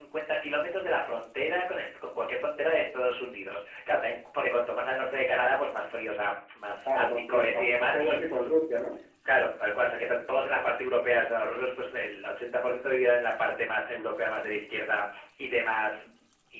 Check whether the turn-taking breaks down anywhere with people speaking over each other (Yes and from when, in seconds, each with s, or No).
Yes, from 6.8 s